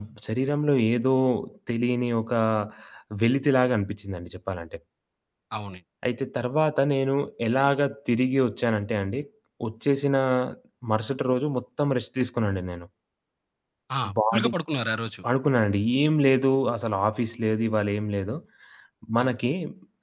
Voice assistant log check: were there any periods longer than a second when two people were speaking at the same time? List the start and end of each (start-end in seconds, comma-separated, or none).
none